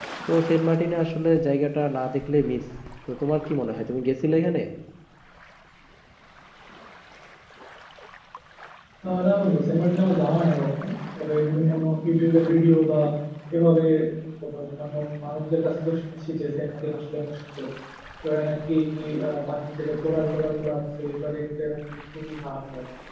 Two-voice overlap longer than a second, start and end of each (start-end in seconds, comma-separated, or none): none